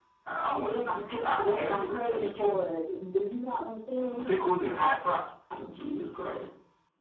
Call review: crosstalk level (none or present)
present